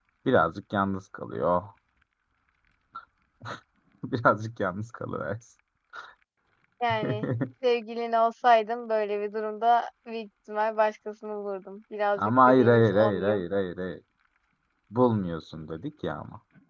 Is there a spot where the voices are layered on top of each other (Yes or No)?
Yes